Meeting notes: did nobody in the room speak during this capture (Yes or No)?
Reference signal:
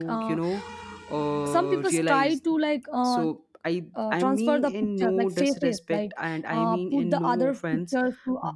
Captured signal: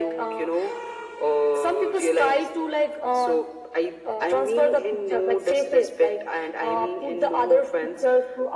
Yes